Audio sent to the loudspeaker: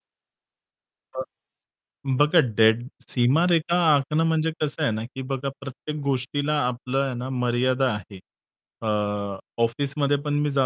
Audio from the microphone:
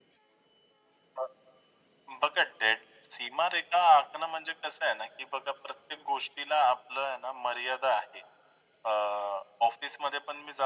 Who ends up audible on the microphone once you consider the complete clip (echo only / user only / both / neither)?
echo only